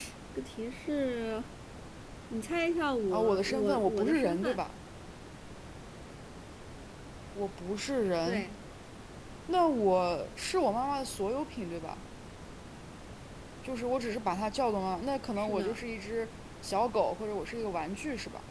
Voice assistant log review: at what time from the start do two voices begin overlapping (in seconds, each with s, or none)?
3.1 s